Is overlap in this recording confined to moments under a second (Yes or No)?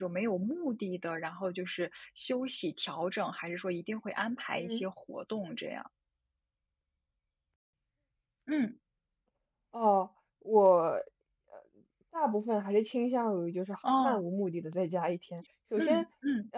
Yes